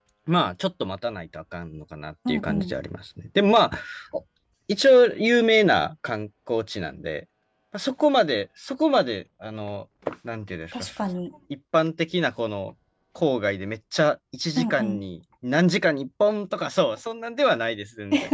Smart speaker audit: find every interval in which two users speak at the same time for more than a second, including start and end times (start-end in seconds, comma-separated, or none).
none